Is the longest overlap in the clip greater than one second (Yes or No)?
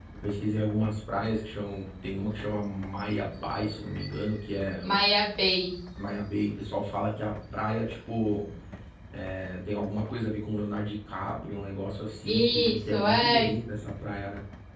Yes